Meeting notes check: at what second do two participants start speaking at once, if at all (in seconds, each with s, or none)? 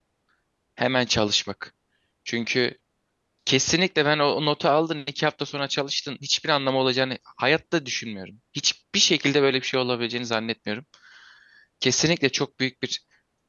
none